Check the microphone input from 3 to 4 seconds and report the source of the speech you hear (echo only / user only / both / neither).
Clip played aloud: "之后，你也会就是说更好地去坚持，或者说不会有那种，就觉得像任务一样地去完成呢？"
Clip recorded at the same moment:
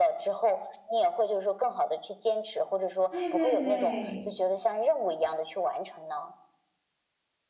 both